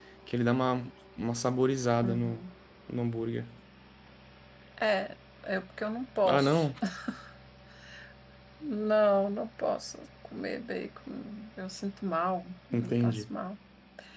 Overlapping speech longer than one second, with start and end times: none

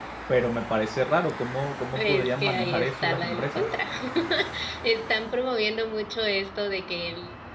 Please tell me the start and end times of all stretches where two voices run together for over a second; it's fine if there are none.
1.9-3.7

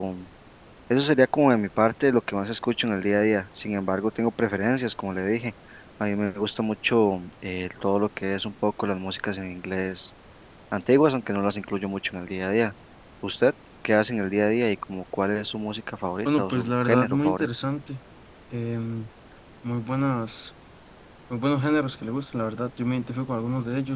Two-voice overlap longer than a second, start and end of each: 16.2-17.5

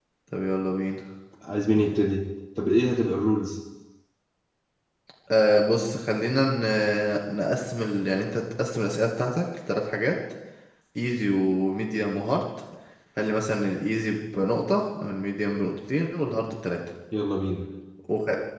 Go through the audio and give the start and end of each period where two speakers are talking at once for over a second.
none

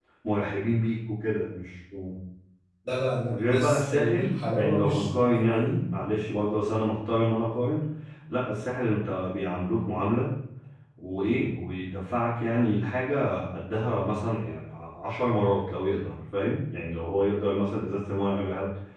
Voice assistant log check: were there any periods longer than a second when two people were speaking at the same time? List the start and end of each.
3.3-5.7

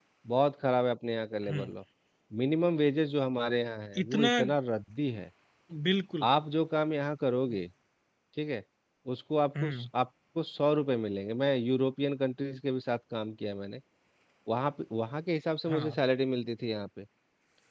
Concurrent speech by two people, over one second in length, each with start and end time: none

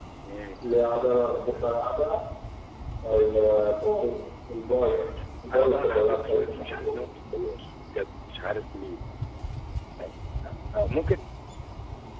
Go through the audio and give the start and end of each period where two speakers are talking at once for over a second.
5.5-6.9

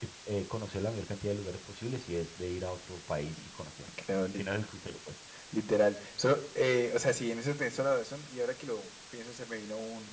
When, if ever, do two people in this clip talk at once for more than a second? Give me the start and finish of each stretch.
none

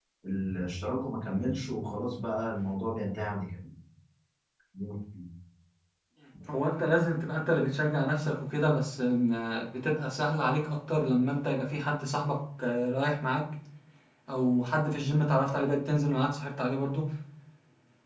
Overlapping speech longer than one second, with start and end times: none

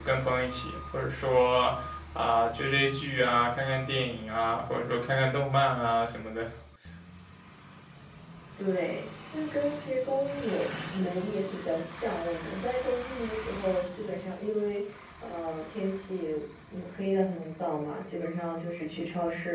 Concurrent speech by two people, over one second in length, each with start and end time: none

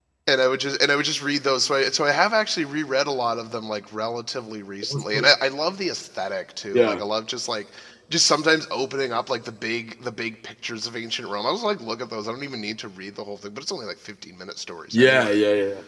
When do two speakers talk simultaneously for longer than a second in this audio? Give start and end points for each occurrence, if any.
none

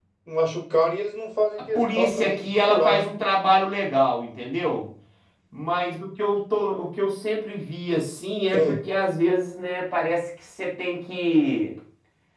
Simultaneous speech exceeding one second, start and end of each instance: 1.8-3.1

